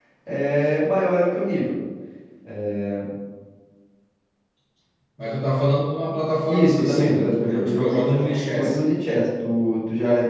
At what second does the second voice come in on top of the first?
6 s

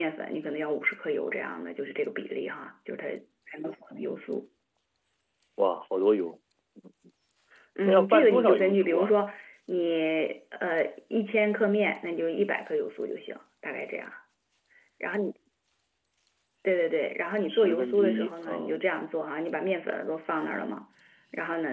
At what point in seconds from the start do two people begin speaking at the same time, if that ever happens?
8 s

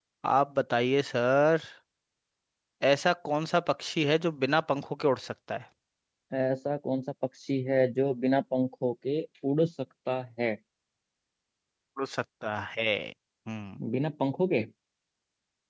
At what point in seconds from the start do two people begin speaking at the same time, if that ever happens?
none

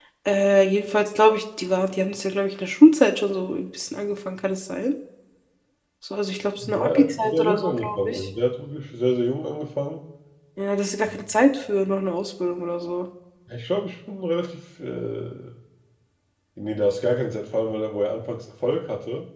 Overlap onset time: 7 s

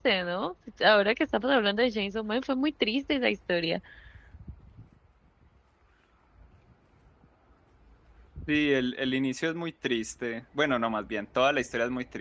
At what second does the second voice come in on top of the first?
none

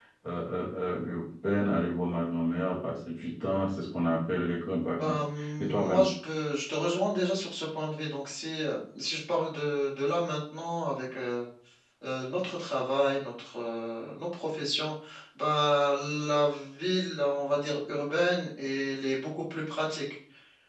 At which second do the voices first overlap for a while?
5 s

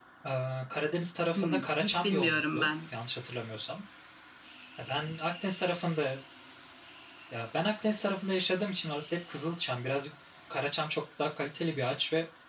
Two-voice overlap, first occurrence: 1 s

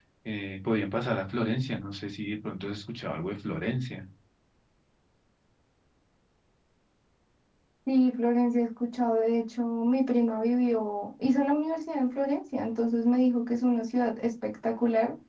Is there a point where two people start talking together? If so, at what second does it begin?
none

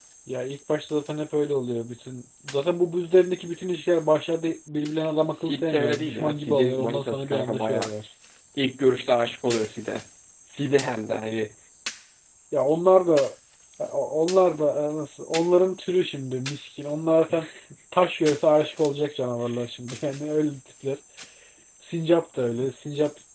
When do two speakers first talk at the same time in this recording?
5 s

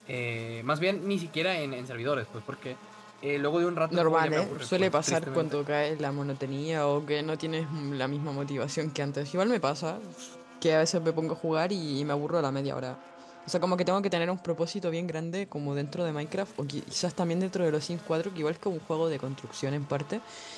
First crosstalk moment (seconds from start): 4 s

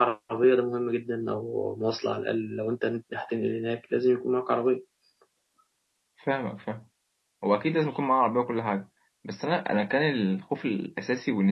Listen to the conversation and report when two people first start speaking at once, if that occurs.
none

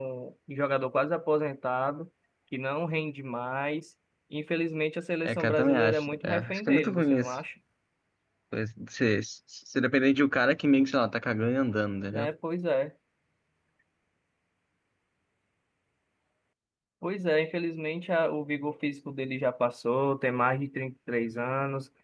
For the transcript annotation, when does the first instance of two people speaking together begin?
5 s

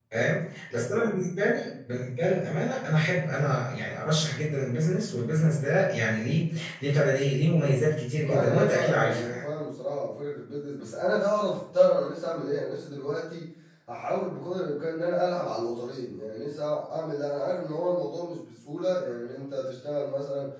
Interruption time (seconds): 8 s

